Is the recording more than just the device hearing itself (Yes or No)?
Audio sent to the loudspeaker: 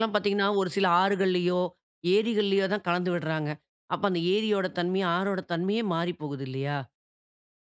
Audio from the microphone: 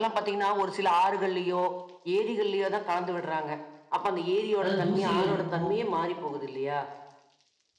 Yes